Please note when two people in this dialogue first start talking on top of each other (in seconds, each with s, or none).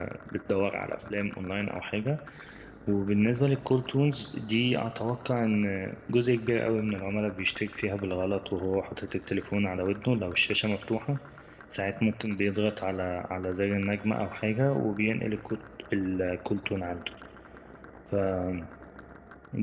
none